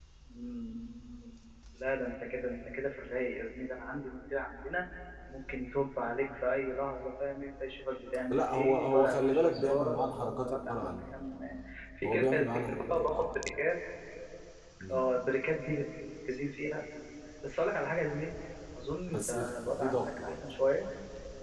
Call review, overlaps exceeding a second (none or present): present